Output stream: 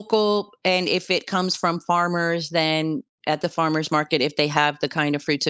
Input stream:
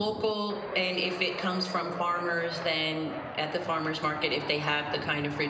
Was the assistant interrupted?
No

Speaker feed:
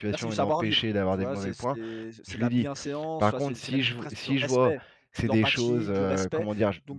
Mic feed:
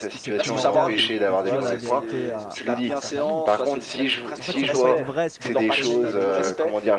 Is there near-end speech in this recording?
Yes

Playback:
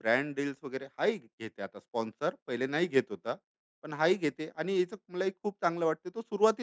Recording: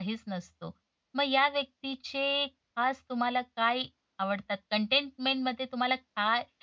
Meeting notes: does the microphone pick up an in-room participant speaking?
Yes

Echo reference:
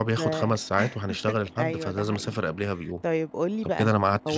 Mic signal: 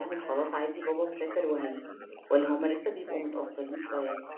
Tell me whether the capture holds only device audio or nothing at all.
No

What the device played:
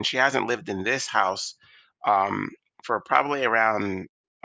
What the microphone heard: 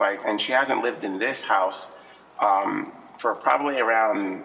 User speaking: No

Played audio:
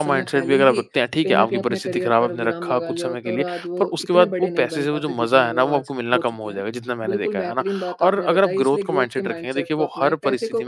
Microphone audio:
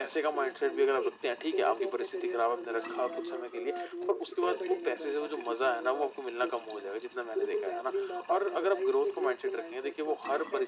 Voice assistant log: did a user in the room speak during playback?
No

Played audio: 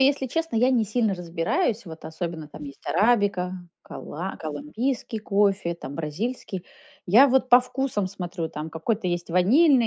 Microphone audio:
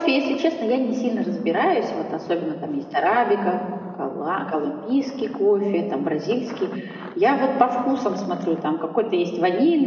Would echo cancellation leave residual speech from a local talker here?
No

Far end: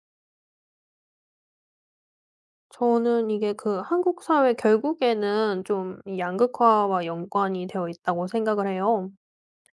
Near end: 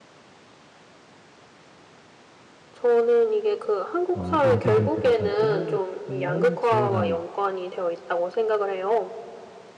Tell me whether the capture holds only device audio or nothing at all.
No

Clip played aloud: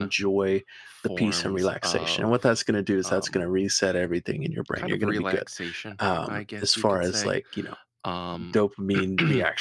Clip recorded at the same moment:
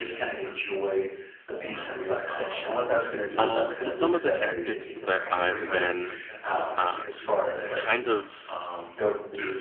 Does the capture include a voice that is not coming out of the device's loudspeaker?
Yes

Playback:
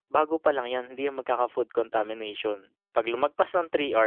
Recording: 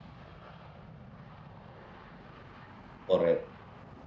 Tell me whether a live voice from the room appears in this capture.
Yes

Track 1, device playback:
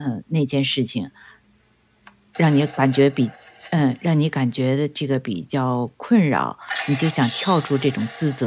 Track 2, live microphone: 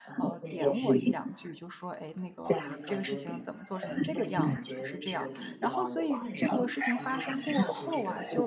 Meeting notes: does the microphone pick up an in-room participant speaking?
Yes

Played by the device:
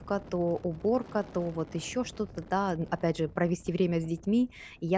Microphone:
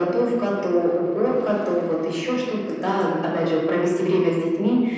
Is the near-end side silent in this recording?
Yes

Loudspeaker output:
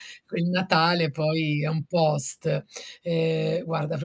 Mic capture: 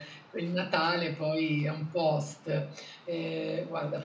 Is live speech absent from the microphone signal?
Yes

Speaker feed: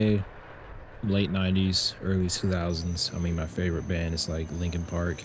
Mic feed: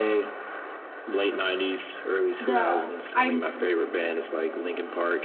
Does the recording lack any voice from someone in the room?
No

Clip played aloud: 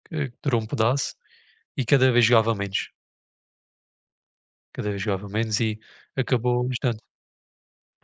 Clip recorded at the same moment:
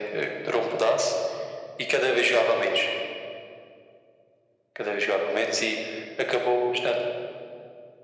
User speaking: No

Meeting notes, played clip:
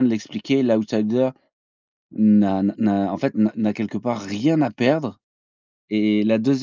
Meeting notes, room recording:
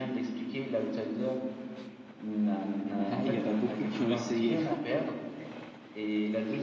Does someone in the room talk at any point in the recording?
Yes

